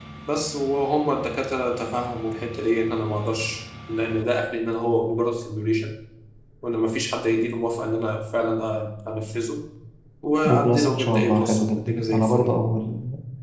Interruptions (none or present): present